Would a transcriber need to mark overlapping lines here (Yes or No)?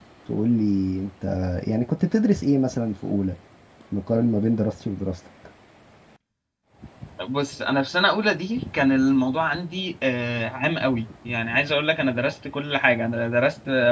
No